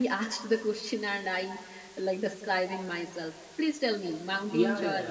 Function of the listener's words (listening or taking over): taking over